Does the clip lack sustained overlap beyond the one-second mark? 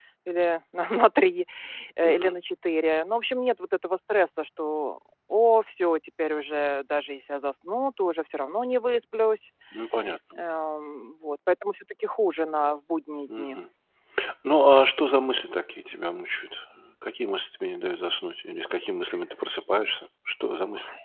Yes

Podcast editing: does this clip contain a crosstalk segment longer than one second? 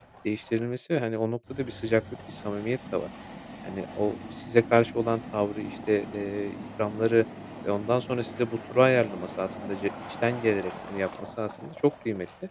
No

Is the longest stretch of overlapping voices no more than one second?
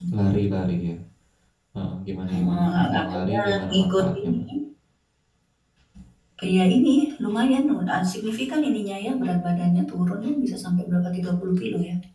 No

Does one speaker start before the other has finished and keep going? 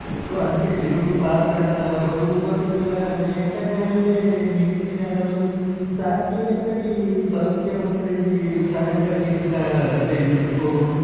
No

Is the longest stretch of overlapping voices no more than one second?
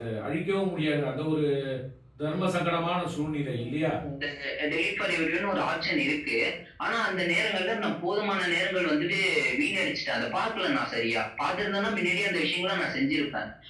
Yes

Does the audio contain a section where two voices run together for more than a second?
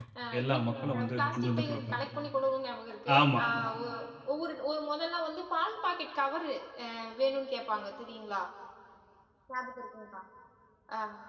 Yes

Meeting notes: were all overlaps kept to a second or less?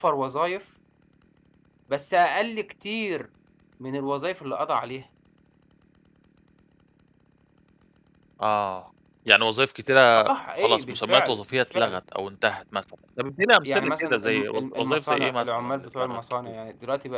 No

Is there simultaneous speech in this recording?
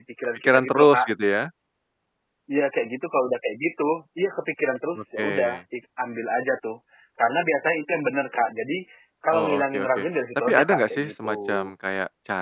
Yes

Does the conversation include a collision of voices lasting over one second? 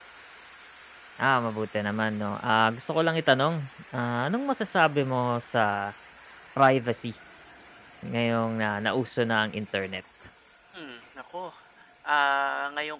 No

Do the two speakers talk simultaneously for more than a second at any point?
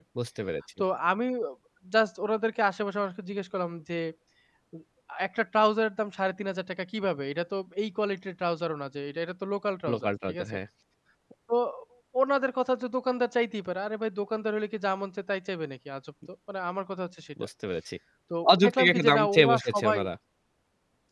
Yes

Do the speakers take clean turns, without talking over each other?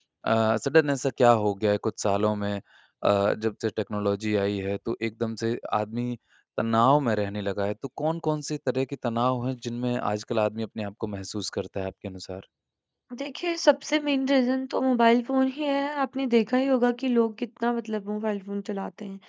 Yes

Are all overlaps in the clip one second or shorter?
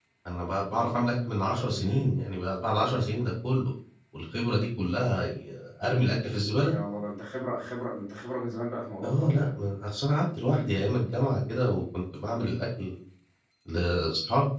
Yes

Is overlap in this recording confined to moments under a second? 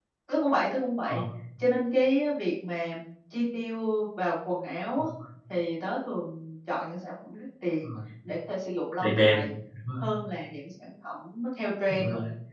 Yes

